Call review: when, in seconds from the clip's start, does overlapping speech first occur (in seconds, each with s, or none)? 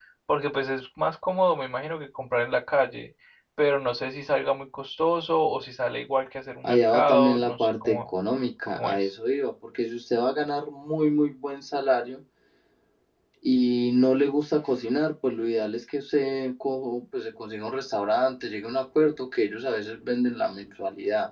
6.6 s